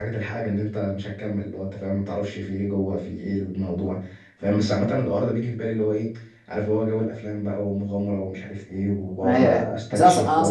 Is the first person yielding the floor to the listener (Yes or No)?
Yes